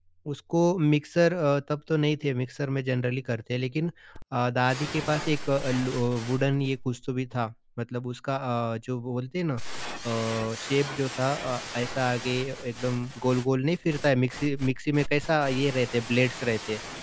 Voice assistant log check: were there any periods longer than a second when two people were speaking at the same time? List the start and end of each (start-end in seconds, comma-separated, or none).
none